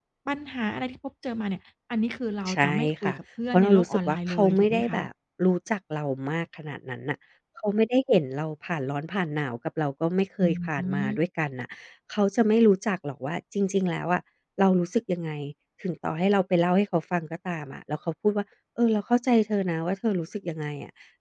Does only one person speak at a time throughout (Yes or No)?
No